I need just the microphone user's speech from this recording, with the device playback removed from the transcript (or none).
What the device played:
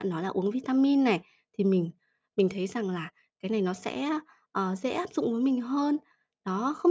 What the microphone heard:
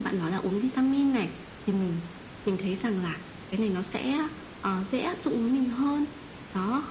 none